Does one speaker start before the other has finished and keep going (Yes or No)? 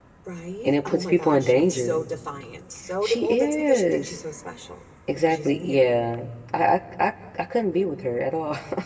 Yes